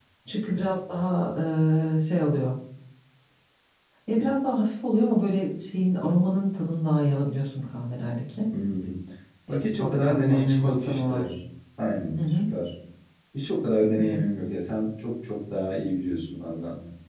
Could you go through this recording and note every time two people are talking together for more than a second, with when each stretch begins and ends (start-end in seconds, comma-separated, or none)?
9.5-11.3